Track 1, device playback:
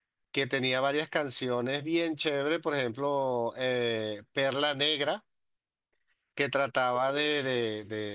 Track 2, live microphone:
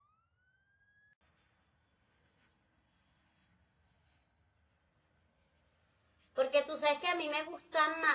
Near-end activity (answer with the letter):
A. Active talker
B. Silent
A